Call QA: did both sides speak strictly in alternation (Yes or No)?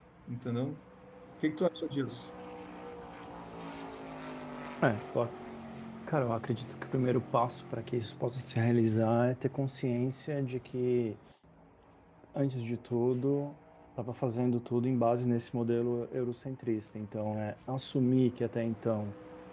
Yes